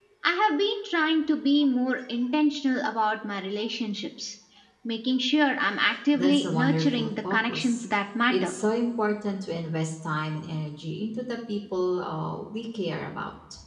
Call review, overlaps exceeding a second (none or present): present